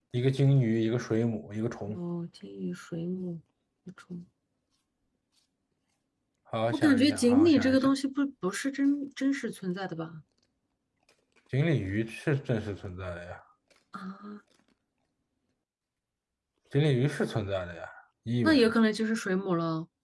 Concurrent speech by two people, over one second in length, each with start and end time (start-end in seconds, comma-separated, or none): 6.7-7.9